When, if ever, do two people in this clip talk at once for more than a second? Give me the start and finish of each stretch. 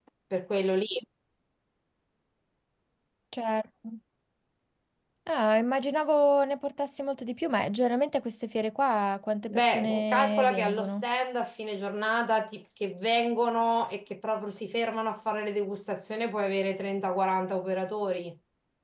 9.5-11.0

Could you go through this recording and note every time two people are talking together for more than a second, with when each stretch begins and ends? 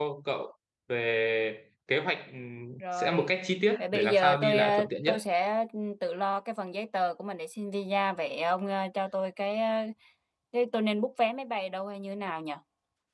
3.8-5.2

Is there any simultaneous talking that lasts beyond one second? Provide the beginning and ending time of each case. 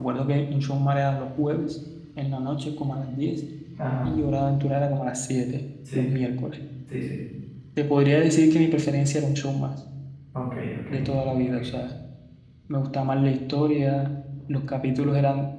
none

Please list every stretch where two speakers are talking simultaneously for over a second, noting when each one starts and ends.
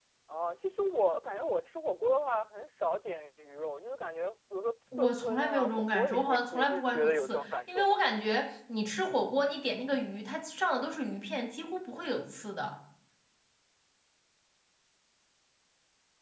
5.0-8.0

